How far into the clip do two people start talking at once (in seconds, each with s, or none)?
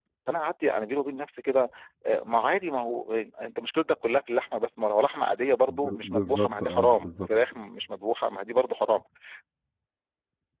5.7 s